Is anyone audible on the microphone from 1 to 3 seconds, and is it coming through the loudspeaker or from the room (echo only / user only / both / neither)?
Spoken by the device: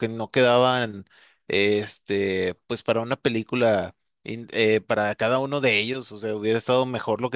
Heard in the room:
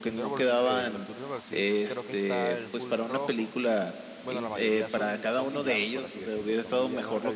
both